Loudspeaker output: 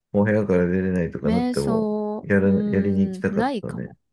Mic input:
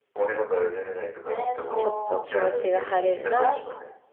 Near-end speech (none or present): present